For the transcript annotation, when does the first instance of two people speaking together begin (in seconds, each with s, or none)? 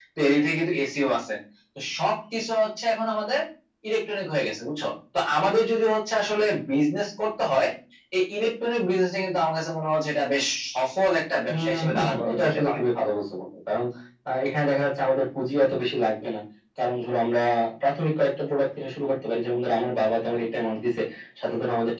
11.5 s